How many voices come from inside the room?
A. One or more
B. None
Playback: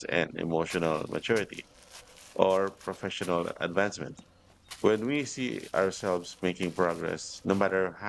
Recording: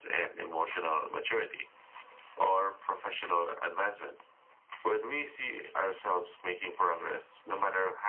B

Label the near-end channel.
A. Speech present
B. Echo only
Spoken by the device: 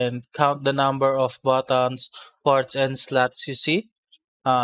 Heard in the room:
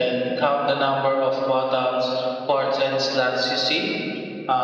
B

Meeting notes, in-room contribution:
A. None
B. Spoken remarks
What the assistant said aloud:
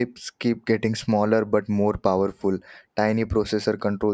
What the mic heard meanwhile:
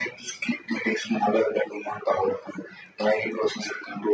A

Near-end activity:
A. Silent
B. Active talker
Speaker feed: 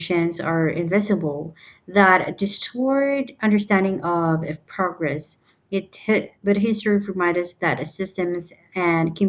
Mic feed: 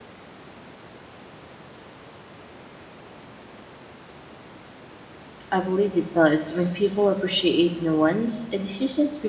B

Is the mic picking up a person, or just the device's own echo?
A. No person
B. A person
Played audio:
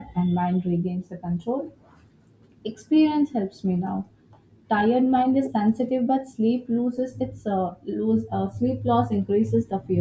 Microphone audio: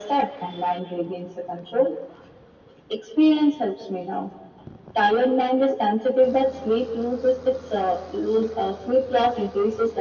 A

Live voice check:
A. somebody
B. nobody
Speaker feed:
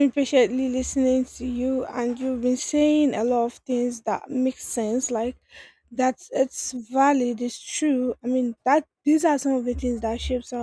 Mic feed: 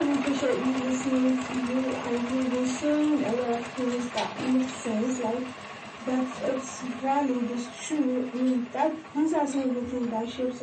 B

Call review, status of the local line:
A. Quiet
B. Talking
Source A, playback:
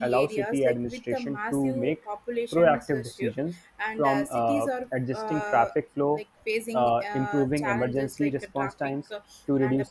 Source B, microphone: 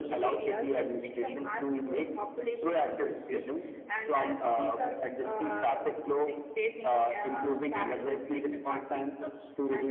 A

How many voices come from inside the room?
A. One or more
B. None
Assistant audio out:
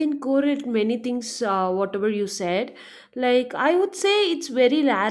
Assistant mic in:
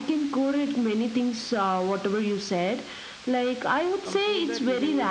A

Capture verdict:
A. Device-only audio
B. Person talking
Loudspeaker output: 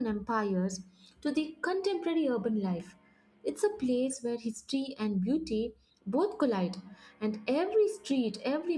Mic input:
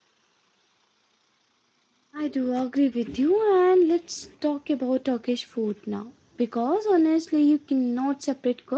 B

